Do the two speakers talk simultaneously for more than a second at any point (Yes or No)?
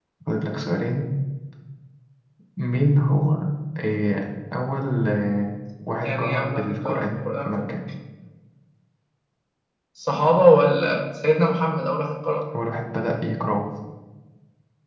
Yes